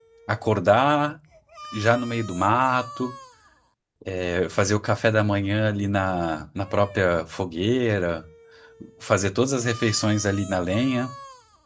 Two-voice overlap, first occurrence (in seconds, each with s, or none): none